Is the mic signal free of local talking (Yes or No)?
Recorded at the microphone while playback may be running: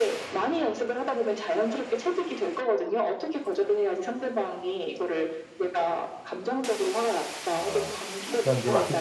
No